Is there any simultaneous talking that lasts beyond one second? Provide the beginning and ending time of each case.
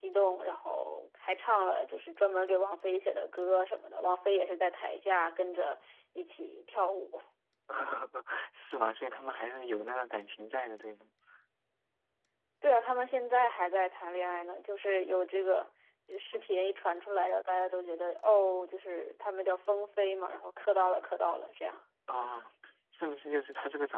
none

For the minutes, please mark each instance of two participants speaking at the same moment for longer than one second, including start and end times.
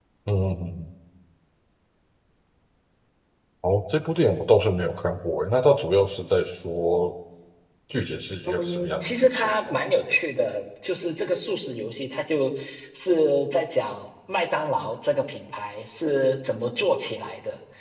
8.5-9.7

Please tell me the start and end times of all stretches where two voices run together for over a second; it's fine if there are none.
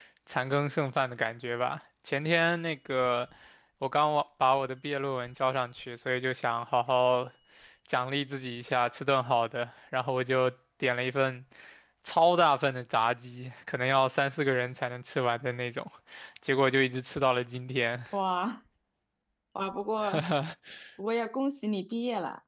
none

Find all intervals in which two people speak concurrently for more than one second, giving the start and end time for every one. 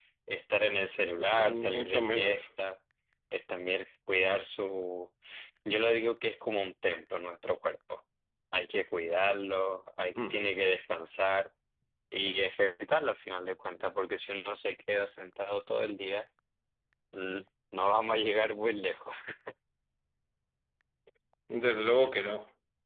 1.2-2.5

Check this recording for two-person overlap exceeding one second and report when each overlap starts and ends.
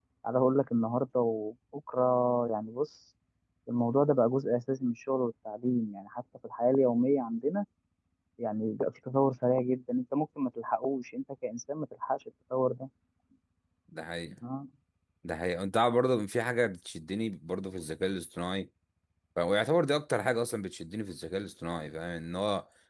none

